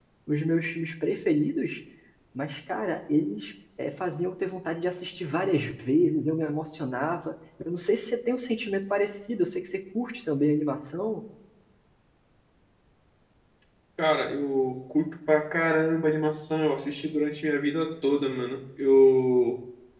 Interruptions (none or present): none